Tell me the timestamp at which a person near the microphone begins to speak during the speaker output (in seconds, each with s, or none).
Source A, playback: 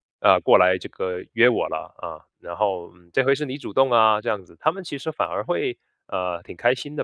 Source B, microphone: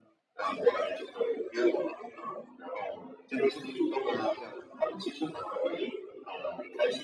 none